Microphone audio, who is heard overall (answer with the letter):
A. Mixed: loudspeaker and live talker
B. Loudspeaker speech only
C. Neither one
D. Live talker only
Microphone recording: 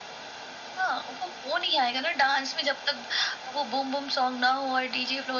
B